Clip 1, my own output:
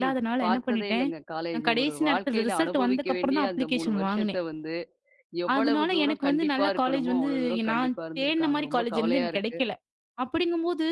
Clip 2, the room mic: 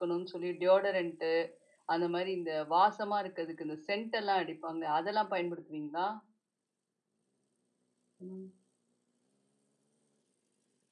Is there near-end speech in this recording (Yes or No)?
Yes